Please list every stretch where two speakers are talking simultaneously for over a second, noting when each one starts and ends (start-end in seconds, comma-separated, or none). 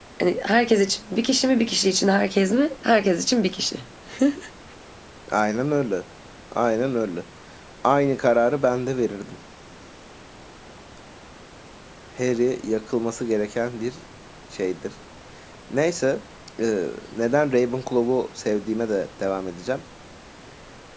none